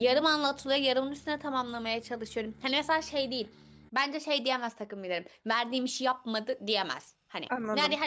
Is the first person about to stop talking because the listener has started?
No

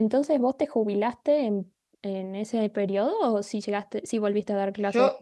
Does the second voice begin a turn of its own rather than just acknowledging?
Yes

